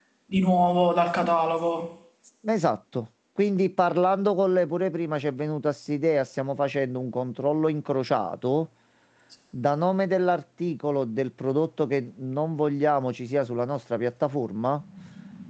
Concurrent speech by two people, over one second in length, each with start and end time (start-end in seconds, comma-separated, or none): none